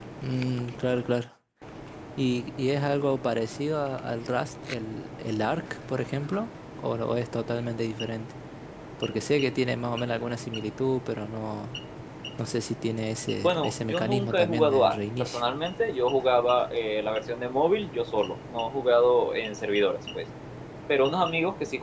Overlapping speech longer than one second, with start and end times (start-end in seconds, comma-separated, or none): 13.3-15.4